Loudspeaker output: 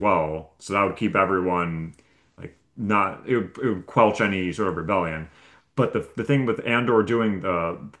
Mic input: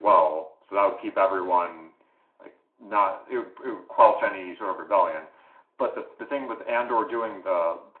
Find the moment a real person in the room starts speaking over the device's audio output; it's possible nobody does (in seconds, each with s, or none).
none